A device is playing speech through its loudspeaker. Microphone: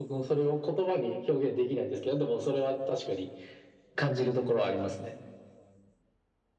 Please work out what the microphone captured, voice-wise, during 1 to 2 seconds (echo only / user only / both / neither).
echo only